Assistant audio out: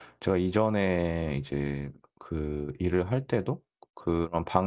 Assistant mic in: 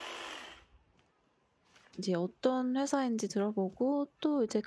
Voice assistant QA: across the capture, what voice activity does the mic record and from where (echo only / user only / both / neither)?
user only